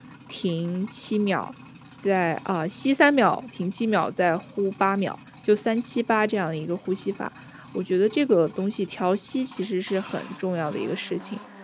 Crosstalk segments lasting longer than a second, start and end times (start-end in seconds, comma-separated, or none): none